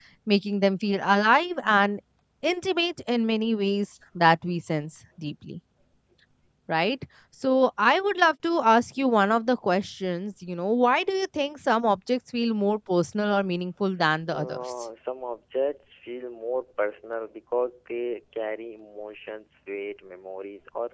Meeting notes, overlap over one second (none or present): none